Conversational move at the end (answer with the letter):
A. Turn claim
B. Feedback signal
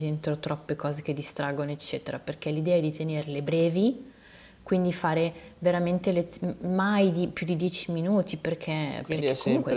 A